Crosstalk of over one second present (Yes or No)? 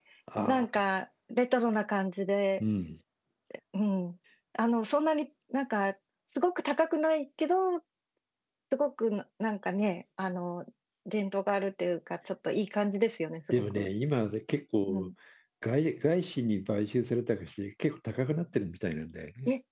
No